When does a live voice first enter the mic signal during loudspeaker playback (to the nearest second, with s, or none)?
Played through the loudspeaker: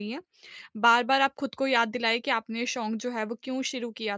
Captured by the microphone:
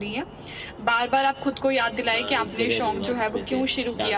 2 s